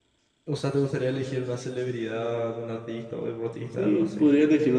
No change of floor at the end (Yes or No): No